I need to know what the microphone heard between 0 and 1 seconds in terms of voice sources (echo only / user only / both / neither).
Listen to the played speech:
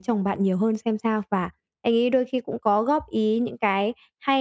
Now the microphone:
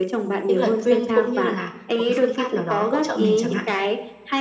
both